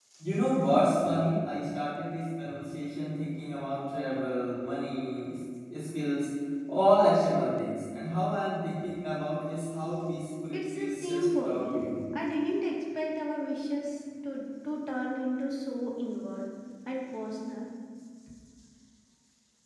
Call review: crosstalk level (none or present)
present